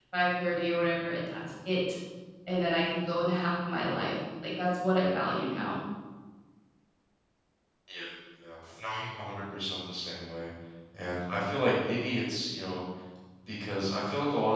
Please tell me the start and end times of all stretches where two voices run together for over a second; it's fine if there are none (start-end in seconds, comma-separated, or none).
none